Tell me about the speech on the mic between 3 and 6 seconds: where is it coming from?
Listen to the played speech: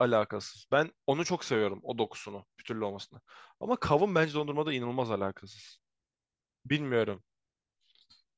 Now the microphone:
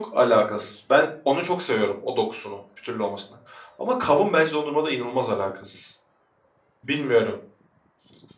echo only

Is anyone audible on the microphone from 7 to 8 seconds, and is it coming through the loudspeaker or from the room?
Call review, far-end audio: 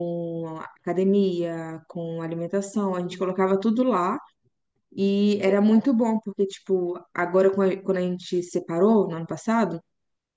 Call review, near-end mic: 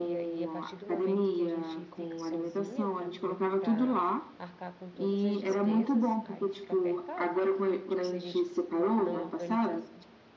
both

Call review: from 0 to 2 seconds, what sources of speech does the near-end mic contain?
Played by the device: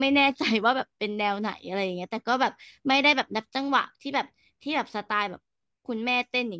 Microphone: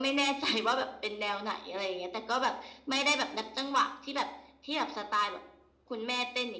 echo only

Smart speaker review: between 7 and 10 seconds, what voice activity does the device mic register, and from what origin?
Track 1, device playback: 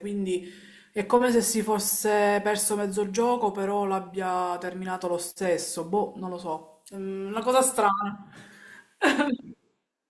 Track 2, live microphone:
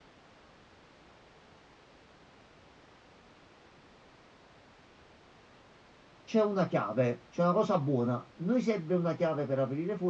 user only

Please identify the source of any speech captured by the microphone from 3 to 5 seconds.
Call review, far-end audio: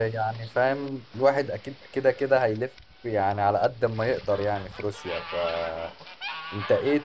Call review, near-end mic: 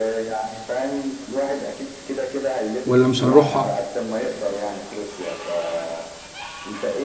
both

